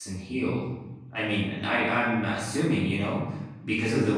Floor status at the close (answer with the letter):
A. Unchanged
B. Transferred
B